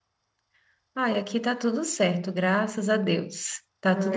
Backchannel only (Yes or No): Yes